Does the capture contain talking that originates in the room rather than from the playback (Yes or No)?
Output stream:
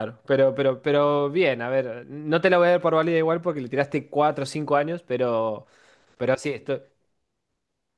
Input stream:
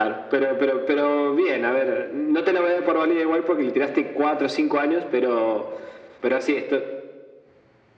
No